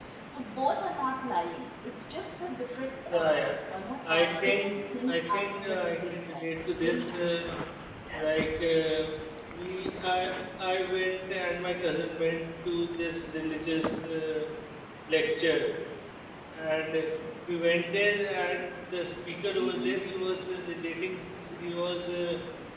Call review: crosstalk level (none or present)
present